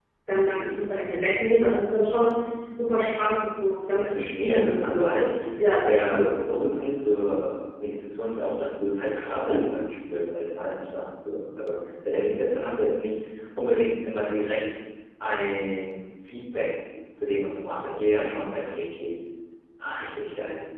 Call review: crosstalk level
present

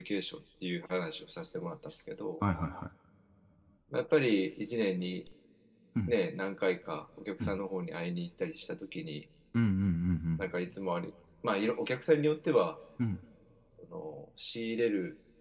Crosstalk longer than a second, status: none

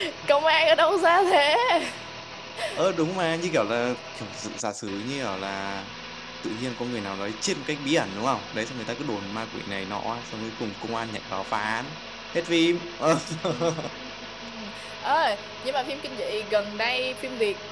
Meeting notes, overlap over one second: none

